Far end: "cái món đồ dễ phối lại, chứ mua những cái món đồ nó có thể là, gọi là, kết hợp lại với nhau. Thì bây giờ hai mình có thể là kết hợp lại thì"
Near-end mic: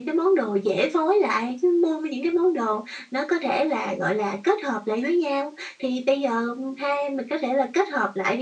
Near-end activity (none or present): none